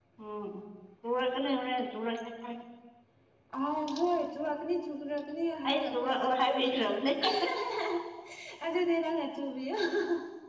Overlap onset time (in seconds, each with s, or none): 5.6 s